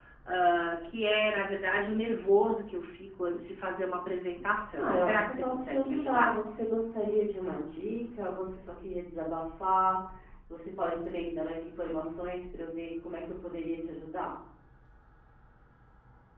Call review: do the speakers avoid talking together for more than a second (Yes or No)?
No